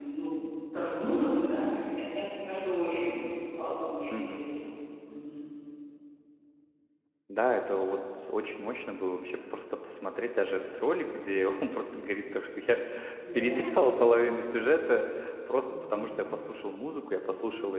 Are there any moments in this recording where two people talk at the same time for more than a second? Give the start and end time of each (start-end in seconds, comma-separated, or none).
none